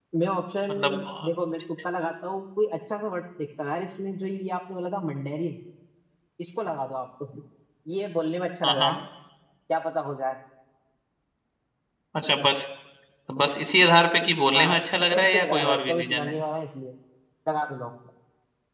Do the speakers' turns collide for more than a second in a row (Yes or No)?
Yes